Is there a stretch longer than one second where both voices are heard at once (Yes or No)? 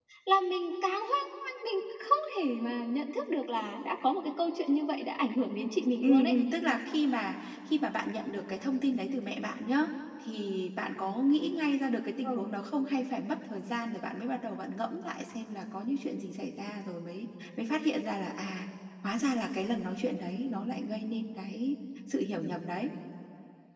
No